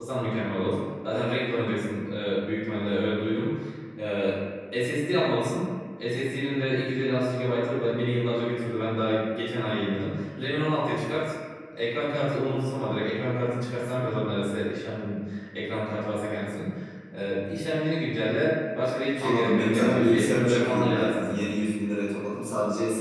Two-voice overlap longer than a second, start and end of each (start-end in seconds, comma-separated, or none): 19.2-21.4